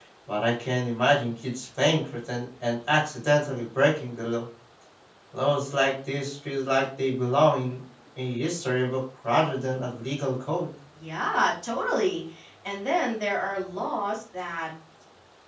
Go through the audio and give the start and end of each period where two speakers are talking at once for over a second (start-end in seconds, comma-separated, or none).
none